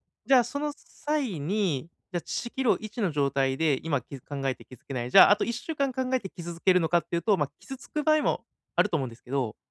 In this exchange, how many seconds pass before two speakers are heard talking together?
none

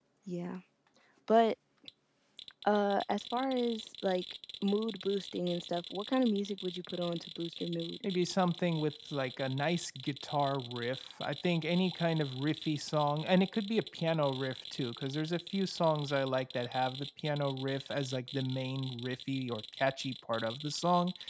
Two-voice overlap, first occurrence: none

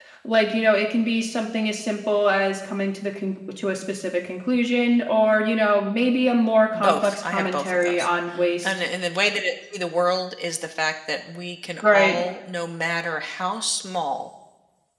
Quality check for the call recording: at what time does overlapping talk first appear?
6.7 s

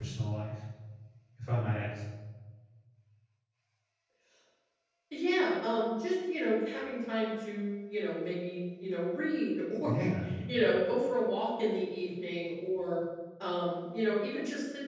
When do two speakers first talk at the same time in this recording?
none

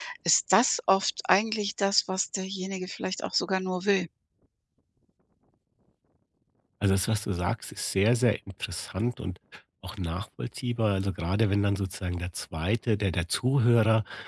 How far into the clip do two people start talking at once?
none

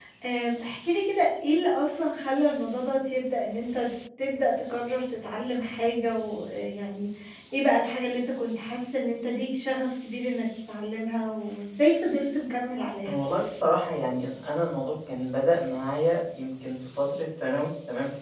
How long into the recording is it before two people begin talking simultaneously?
none

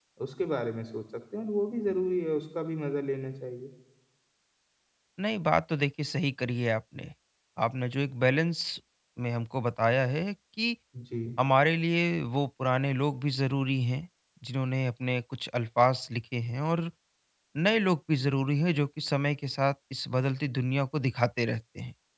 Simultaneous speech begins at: none

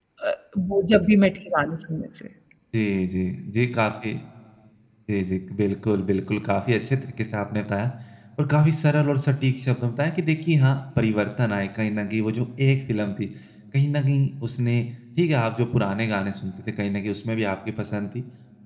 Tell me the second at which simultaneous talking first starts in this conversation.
none

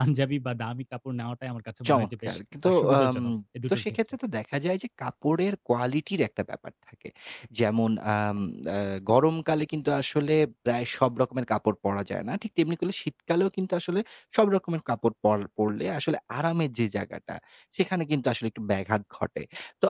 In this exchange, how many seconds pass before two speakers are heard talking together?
1.9 s

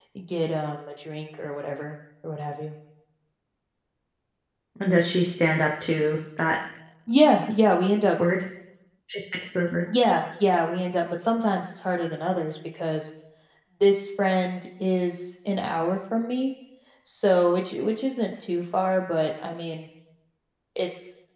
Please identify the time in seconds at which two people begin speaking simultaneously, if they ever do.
none

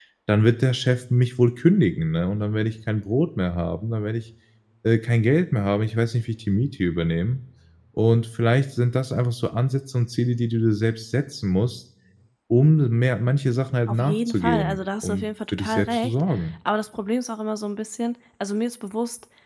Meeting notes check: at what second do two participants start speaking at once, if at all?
13.9 s

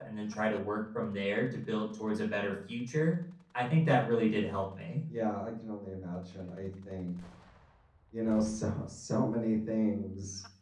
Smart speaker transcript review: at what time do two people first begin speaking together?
none

